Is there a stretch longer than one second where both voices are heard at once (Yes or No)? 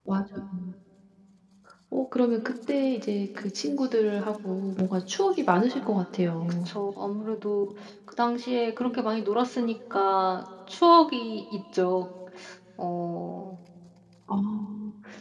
No